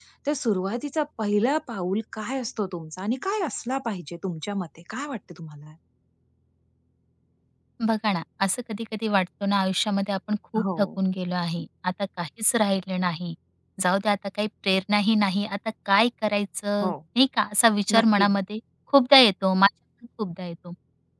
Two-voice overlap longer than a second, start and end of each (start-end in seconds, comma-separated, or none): none